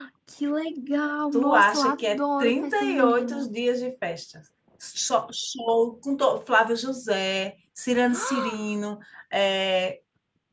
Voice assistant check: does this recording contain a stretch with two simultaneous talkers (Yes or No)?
Yes